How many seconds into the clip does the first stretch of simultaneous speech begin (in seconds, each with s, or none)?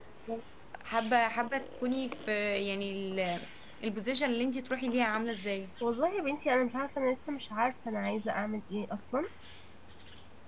none